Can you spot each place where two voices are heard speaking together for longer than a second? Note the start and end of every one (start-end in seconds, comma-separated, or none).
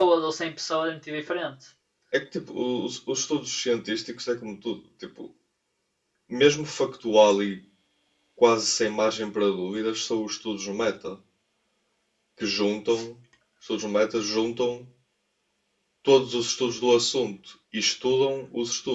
none